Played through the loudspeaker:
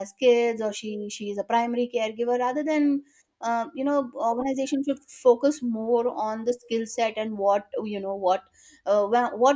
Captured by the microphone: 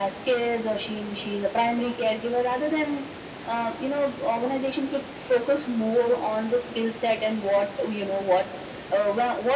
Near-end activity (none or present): none